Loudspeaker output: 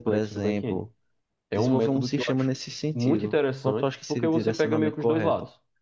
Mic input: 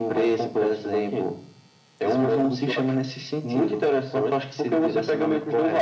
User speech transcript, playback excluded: none

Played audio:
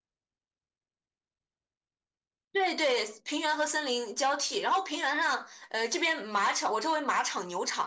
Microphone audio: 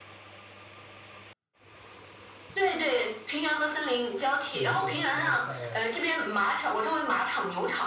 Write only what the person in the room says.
就我们有的时候在

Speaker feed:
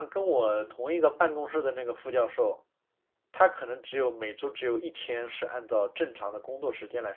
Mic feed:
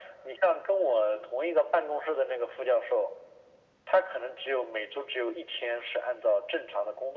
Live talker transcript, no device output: none

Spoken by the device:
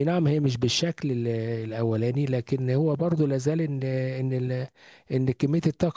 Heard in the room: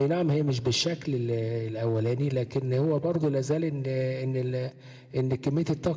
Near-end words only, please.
none

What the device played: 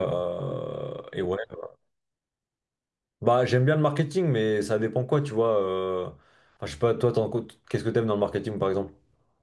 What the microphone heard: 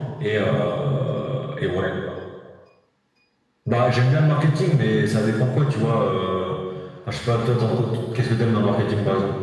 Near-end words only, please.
none

